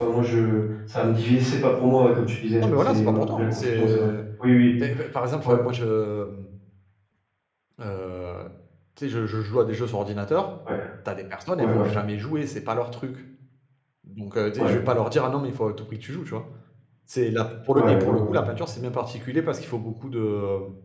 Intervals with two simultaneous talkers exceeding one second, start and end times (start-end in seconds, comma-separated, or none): 2.6-4.1